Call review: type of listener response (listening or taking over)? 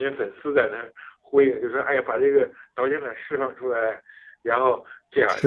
listening